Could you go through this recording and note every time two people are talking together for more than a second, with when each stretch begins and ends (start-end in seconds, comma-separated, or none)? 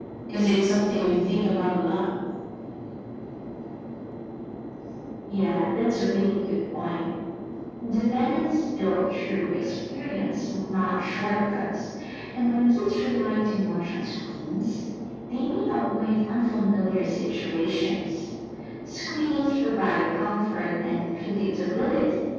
none